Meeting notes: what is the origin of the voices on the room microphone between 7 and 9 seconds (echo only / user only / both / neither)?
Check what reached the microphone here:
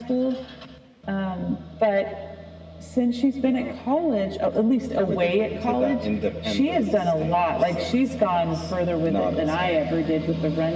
echo only